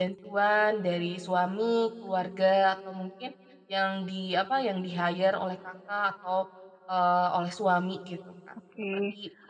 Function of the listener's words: taking over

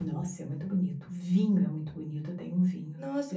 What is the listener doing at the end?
taking over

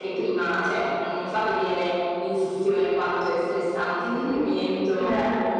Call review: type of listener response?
listening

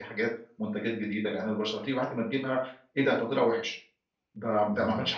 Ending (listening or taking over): listening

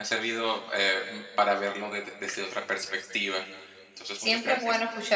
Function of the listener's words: taking over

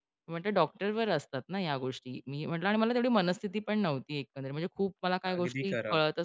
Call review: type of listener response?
listening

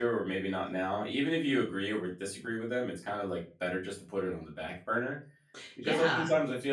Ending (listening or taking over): listening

